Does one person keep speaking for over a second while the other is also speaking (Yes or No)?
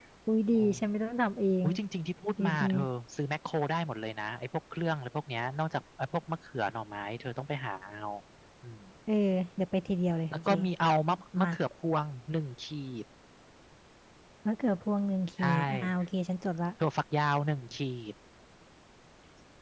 No